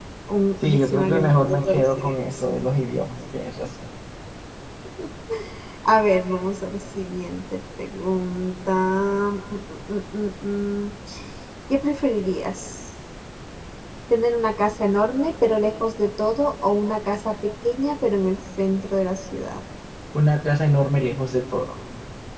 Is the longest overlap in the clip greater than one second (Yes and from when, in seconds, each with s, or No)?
Yes, from 0.7 s